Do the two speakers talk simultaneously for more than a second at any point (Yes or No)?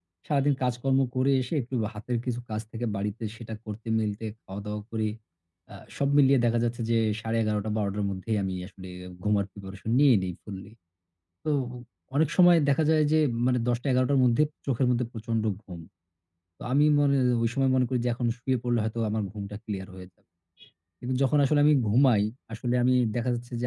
No